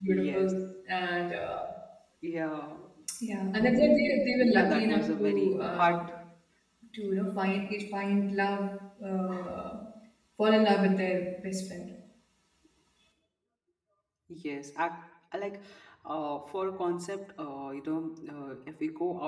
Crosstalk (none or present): present